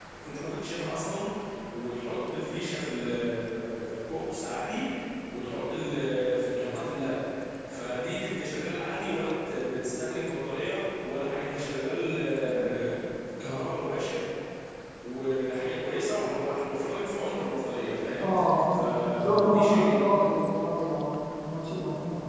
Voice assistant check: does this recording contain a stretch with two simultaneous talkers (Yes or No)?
Yes